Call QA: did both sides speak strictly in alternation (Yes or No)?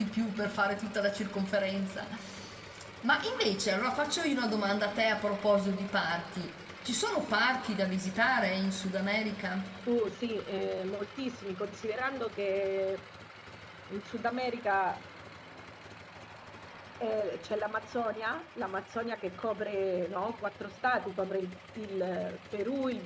Yes